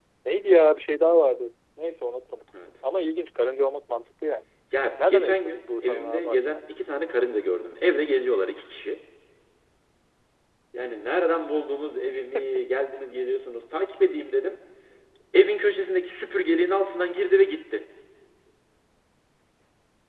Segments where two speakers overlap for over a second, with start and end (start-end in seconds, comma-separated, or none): 5.1-6.6